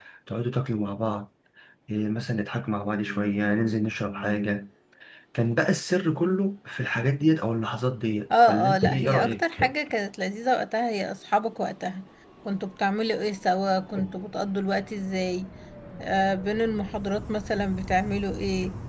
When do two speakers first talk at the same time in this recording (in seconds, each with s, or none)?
8.3 s